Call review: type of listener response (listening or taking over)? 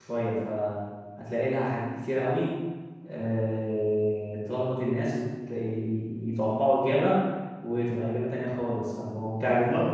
taking over